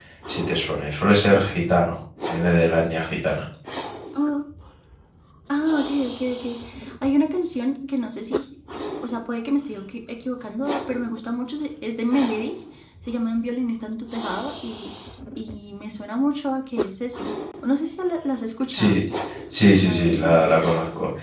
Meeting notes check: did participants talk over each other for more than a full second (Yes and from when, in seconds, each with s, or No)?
No